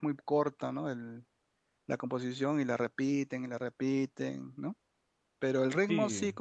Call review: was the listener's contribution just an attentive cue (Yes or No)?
Yes